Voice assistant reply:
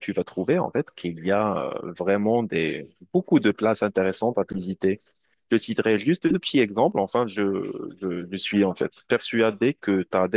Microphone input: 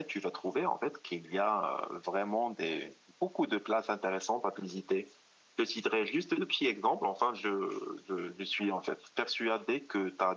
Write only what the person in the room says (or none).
none